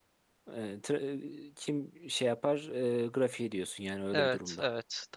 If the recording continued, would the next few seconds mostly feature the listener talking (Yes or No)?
Yes